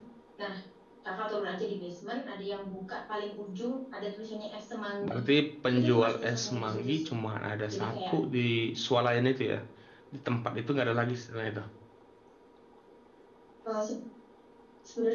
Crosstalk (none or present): present